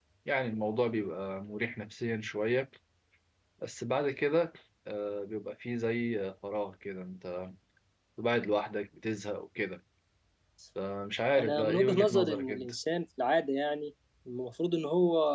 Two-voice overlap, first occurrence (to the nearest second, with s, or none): 11 s